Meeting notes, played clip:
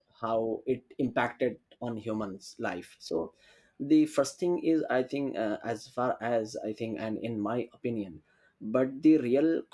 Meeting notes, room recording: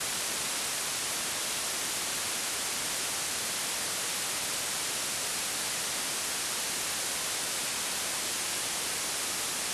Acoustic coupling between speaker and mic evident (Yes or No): No